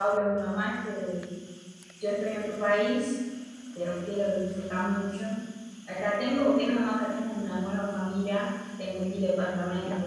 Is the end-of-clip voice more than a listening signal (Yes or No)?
No